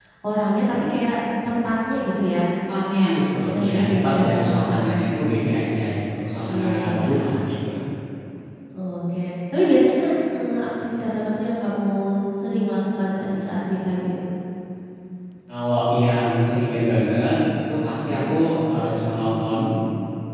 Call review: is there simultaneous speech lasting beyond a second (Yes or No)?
Yes